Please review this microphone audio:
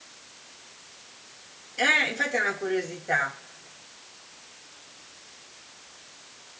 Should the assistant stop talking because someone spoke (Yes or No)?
Yes